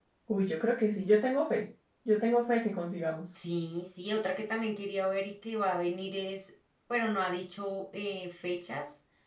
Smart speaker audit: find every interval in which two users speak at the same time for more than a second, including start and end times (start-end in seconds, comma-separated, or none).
none